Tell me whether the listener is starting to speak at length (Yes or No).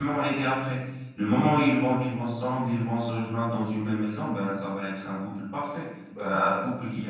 No